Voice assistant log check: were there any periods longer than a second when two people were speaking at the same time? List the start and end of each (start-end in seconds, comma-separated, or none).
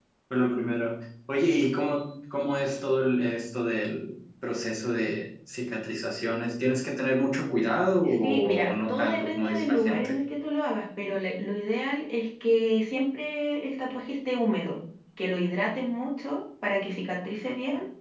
8.2-10.1